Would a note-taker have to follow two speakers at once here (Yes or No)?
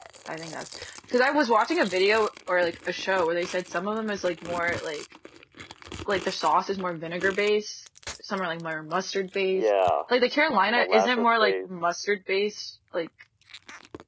Yes